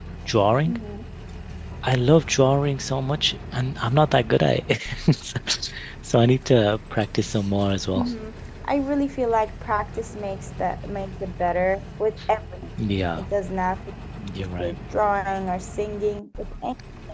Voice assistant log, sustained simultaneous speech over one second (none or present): none